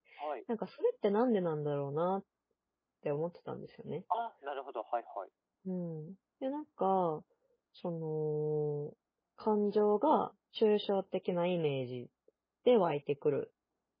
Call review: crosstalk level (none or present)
none